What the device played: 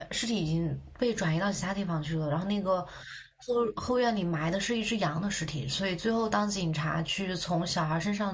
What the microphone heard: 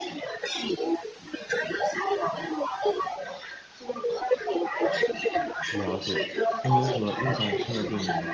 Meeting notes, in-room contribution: present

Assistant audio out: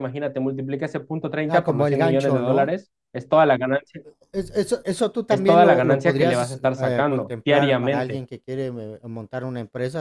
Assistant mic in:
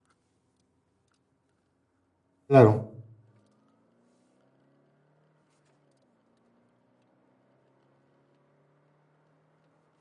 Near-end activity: present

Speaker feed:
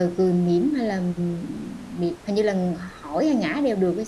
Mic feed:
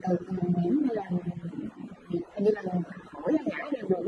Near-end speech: none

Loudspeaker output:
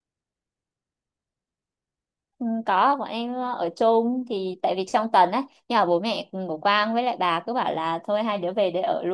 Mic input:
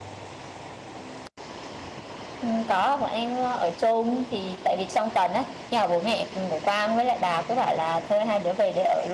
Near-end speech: none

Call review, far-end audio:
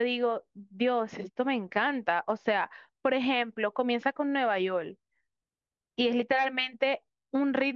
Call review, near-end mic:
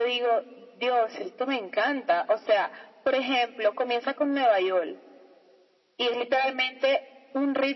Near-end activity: none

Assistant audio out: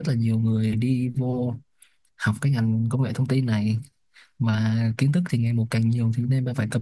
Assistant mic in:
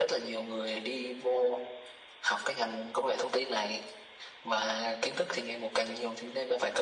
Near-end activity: none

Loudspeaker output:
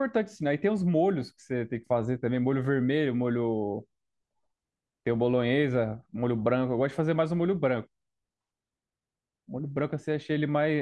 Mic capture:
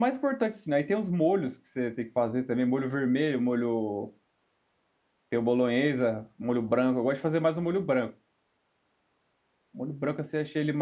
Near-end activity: none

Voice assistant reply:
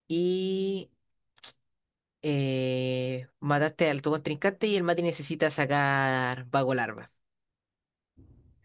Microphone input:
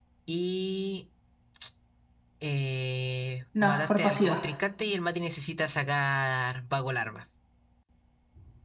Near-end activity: present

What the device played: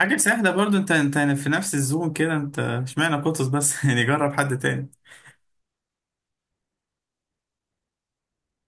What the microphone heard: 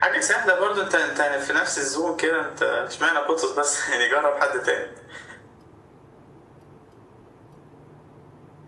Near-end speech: none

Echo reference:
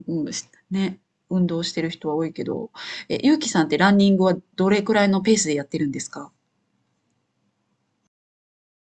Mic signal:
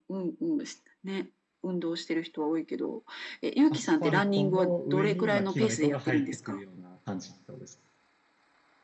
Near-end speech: present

